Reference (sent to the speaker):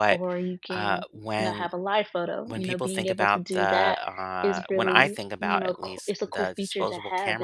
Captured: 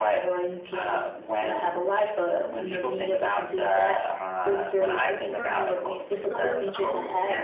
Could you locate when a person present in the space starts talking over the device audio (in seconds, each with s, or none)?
5.3 s